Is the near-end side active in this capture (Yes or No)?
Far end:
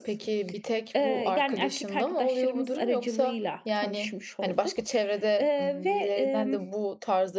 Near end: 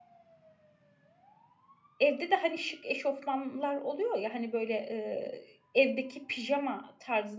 Yes